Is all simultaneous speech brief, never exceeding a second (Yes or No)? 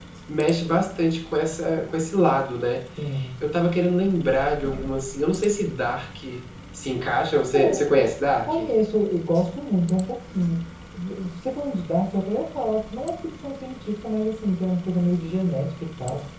Yes